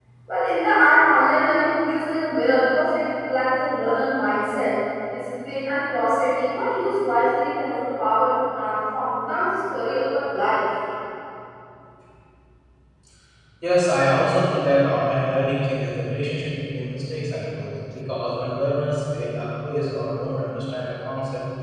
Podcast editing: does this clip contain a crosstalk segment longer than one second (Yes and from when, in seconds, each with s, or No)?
No